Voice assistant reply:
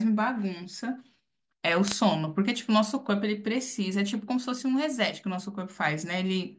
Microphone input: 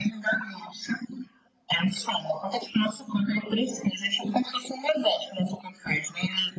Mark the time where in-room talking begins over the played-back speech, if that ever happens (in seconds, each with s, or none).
none